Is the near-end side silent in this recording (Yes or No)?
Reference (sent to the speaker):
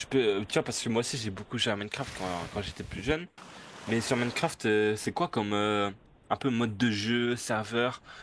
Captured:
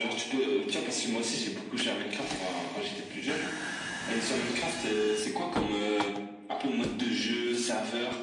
Yes